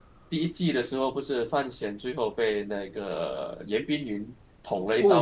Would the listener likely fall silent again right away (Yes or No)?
No